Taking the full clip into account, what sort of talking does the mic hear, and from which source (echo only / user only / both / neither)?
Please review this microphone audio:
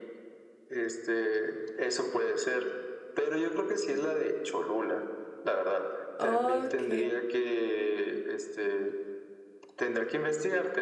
both